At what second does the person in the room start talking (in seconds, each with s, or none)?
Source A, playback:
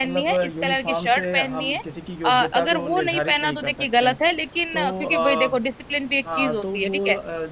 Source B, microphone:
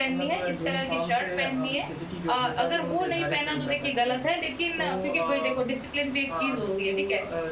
none